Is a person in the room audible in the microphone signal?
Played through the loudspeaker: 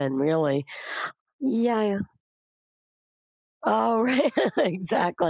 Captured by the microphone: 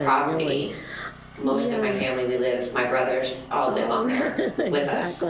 Yes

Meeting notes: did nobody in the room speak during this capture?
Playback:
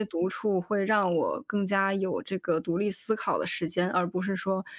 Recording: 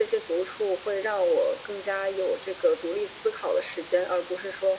Yes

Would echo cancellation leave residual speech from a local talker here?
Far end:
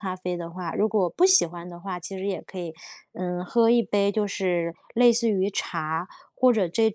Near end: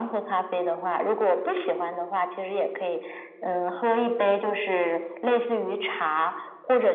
No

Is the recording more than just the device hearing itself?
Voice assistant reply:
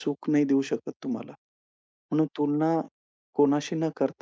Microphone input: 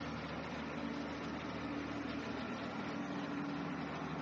No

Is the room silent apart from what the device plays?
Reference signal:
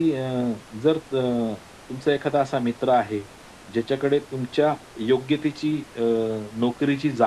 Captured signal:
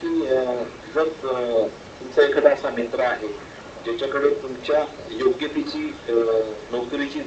Yes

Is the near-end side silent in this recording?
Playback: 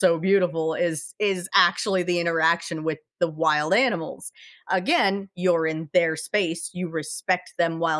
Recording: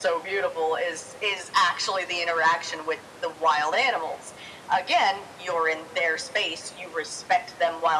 Yes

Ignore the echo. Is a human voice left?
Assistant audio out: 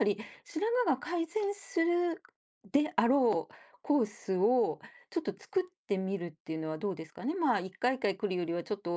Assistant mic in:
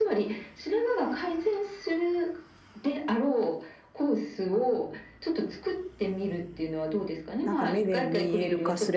Yes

